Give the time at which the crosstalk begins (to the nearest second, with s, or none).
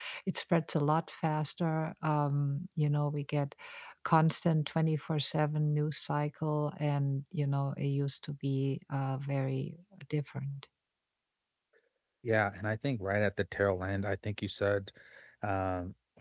none